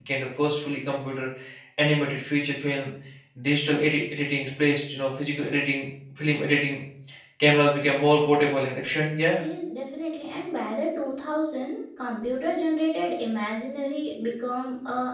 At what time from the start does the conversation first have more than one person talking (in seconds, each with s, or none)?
none